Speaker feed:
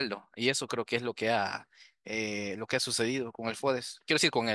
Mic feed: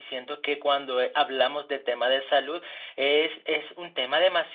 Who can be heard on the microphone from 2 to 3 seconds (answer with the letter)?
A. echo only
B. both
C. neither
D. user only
D